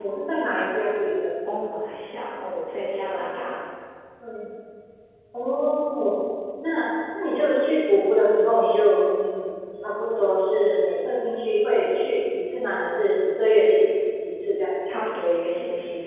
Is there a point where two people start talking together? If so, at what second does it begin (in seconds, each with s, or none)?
none